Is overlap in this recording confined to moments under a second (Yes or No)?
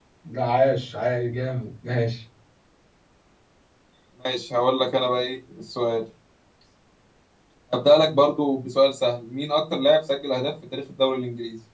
Yes